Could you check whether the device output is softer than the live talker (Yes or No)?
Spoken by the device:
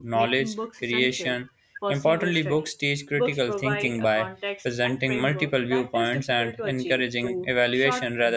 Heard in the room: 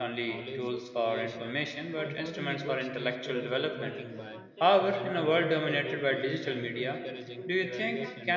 Yes